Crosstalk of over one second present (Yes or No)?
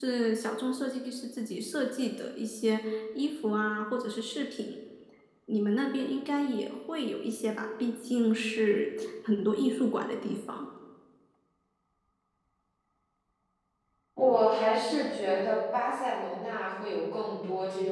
No